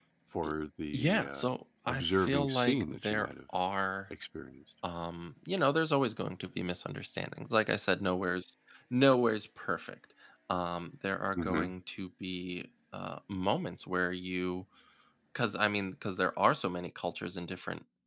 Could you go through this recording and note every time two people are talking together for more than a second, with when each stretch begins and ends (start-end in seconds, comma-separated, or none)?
1.9-3.3